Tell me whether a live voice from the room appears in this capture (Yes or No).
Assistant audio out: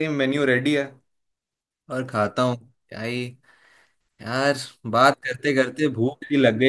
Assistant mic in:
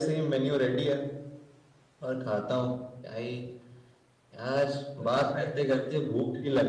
Yes